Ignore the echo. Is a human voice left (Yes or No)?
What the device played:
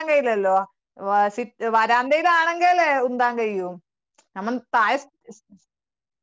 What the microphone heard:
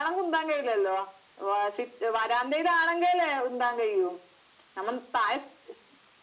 No